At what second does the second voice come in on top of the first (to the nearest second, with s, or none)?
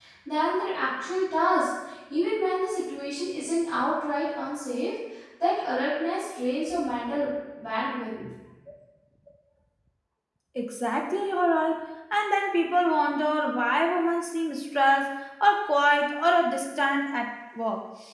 none